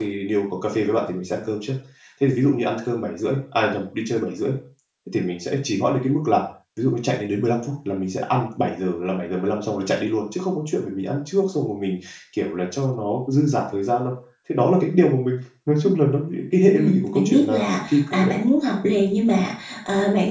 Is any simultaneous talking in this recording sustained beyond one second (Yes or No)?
Yes